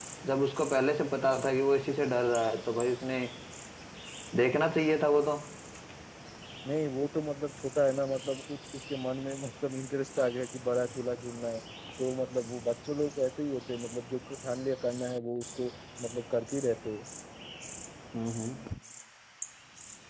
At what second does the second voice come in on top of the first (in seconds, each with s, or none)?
none